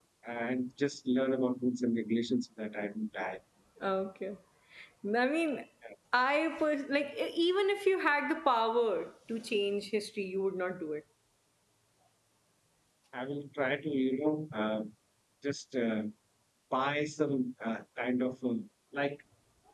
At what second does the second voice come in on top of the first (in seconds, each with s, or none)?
none